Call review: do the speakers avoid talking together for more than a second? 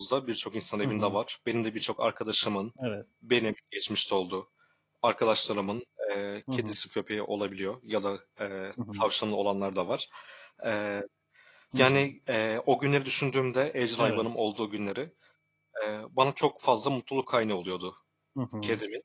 Yes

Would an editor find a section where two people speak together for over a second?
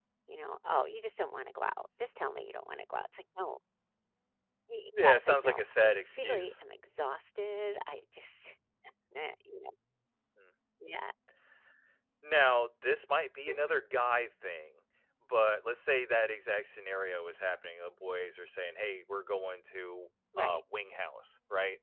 Yes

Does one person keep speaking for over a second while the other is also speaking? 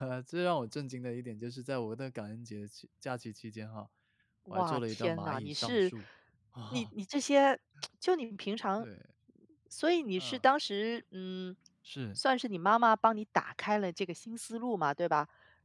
Yes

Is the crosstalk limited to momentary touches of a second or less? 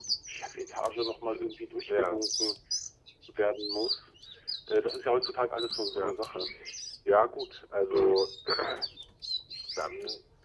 Yes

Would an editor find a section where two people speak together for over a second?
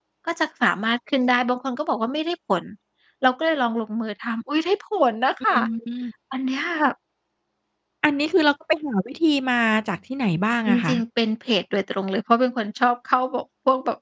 No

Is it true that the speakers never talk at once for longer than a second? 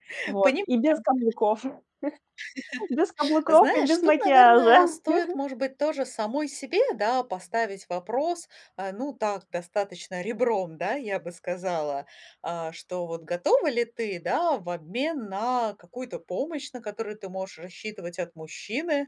No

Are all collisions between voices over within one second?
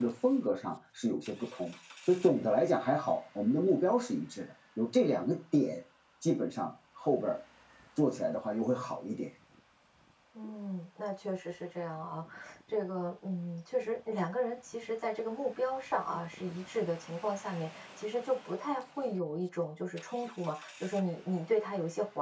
Yes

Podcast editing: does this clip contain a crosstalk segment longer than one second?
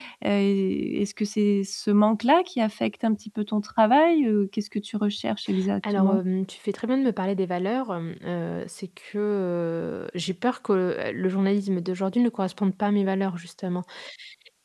No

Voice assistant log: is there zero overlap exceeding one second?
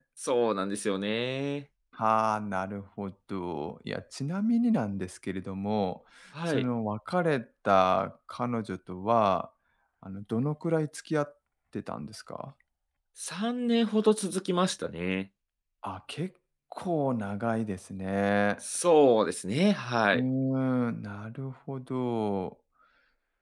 Yes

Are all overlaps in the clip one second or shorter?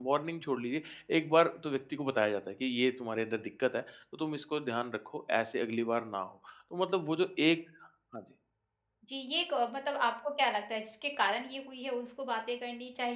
Yes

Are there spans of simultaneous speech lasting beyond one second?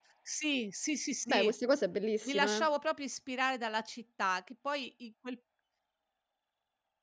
No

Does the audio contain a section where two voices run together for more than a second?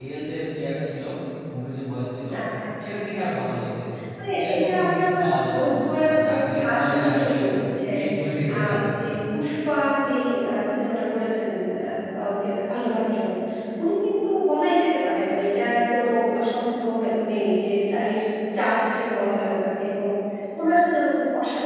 Yes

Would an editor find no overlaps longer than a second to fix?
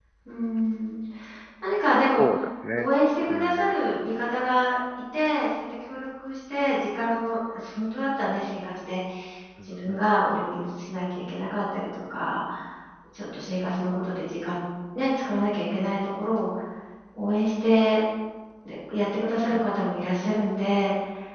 Yes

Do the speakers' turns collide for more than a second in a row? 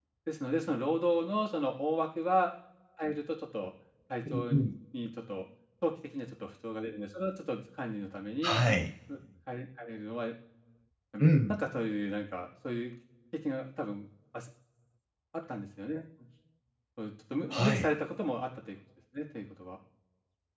No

